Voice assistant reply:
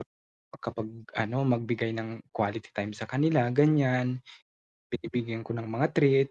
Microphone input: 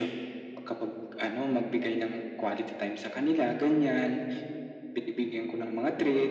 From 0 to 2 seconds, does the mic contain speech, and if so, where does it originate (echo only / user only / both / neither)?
echo only